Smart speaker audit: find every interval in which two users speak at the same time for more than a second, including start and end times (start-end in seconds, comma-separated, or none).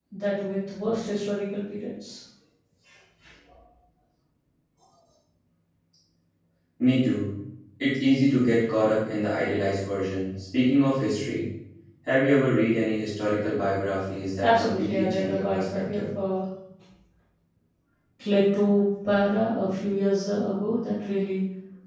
14.4-16.0